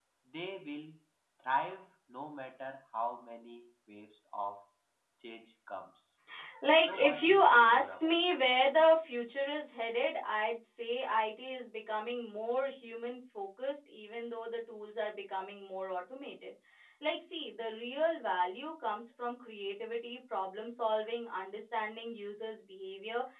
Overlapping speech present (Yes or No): Yes